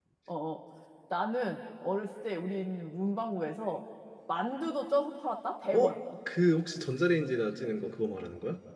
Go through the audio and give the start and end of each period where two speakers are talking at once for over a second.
none

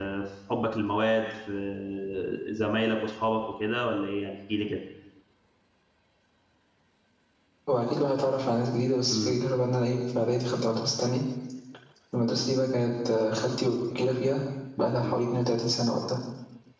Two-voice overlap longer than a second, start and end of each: none

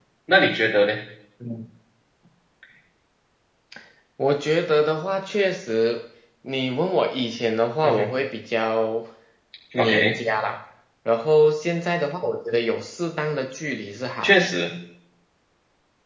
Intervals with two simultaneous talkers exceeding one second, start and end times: none

